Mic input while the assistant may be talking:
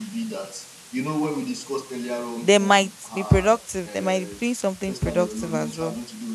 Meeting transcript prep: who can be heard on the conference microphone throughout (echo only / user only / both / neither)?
both